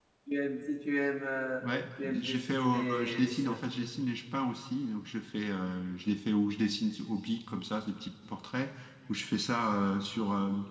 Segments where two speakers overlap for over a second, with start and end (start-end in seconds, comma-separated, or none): 1.6-3.6